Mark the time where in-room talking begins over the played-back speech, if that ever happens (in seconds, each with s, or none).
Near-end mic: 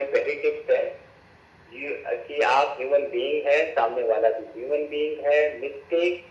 none